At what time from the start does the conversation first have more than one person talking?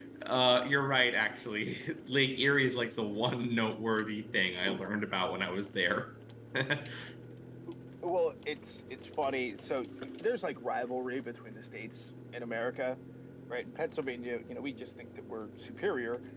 none

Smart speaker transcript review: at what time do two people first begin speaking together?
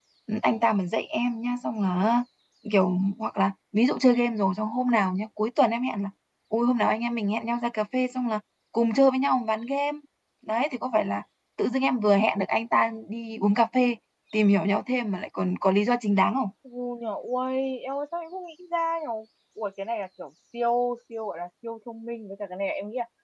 none

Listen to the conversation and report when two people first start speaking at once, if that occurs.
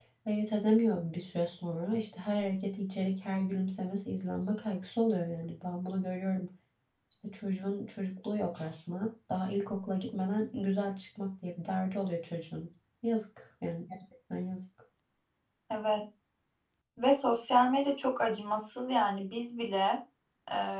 none

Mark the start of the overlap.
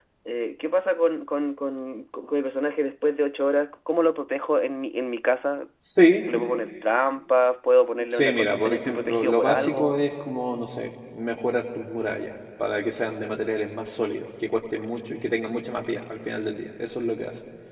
8 s

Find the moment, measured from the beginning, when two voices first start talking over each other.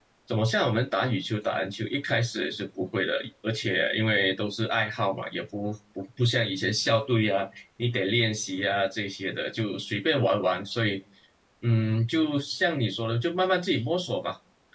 none

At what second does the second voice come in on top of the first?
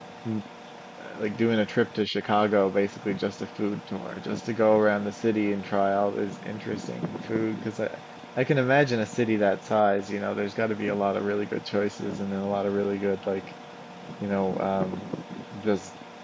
none

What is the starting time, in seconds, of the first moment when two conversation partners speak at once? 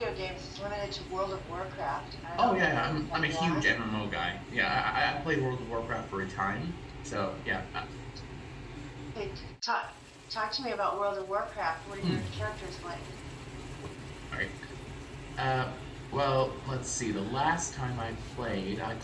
2 s

